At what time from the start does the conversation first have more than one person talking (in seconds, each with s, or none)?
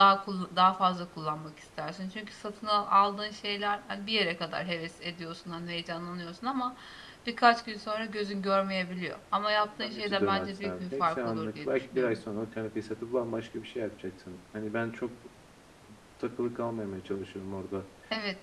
9.8 s